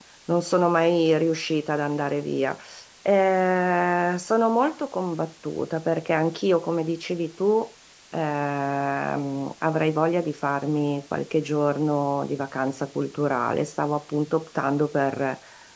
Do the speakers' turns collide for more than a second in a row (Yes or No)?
No